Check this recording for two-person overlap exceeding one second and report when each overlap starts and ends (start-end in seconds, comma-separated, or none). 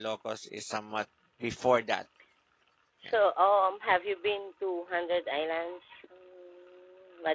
none